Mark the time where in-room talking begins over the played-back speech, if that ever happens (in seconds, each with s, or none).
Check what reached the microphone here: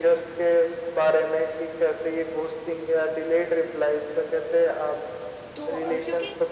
5.5 s